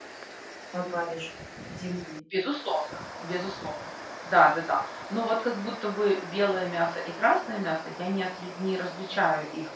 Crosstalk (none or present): none